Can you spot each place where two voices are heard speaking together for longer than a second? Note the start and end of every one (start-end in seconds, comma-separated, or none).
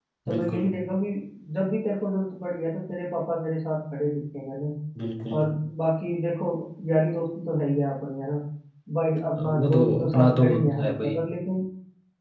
9.4-11.2